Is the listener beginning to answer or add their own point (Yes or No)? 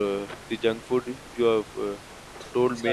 No